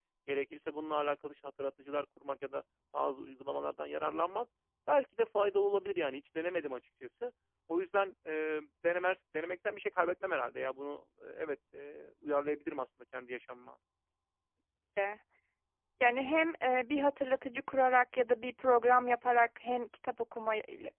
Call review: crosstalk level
none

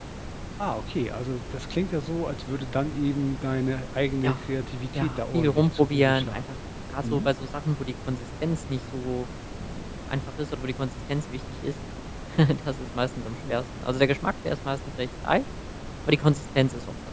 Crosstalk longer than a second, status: present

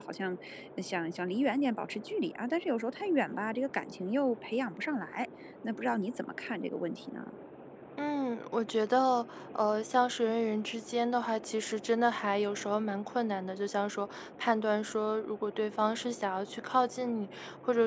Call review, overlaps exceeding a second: none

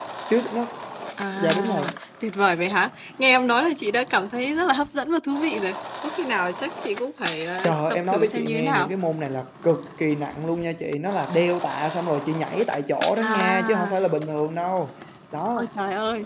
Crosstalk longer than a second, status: present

